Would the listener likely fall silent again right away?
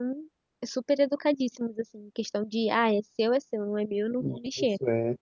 No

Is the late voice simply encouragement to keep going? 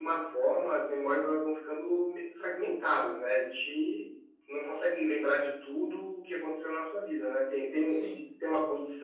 Yes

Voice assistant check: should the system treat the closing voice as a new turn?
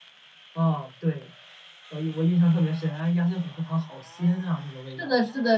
Yes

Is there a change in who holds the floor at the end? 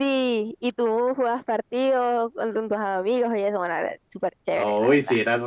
Yes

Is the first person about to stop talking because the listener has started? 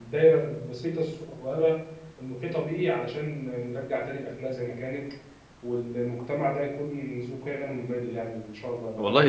Yes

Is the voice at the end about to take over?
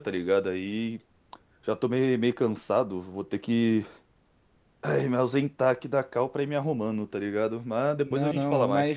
Yes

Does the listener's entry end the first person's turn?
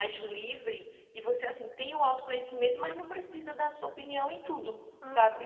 Yes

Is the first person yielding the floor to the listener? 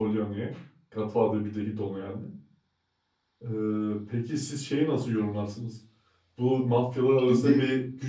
No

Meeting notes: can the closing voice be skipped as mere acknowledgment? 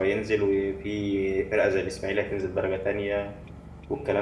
No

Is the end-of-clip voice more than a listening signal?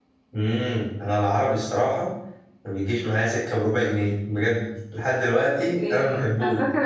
Yes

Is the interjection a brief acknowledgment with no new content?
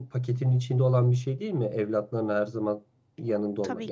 Yes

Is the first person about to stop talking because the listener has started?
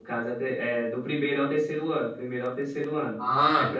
No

